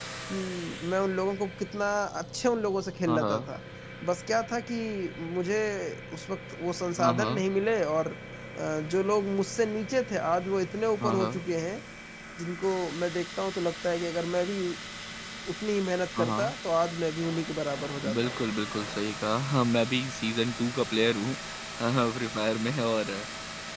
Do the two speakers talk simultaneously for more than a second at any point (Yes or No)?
No